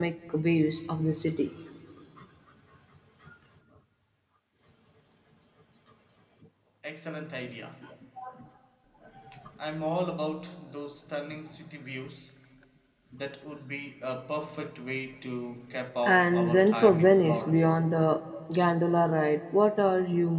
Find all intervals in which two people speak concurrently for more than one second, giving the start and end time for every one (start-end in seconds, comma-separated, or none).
16.0-17.6